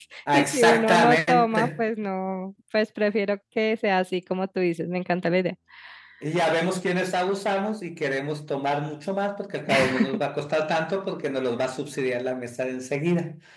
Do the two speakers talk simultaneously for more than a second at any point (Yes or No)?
Yes